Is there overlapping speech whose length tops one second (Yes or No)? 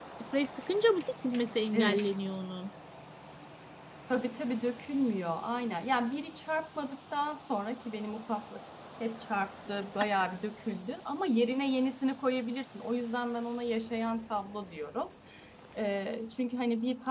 No